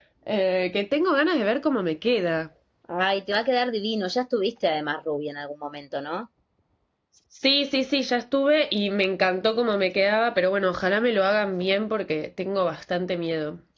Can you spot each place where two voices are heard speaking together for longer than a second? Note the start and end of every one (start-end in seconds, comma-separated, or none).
none